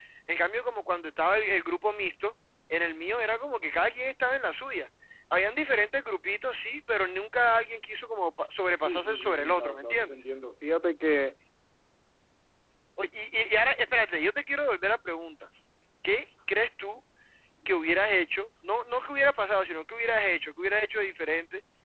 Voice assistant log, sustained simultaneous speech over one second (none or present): present